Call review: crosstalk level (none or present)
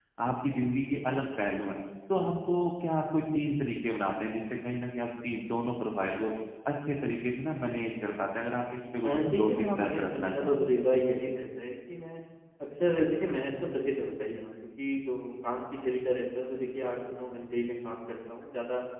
present